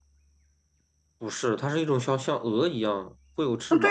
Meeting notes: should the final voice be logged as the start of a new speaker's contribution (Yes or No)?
Yes